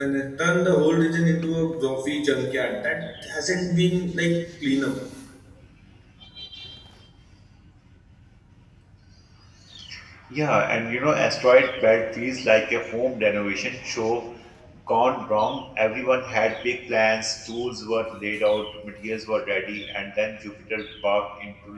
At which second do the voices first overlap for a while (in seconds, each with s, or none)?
none